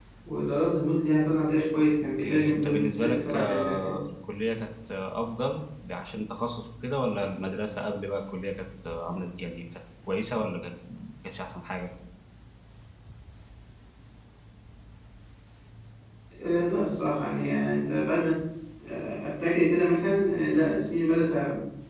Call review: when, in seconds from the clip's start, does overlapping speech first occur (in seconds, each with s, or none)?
2.2 s